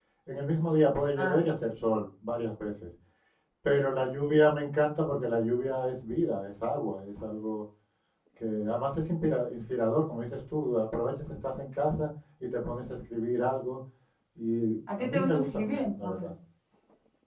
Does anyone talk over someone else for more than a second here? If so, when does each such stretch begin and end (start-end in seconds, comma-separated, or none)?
15.0-16.3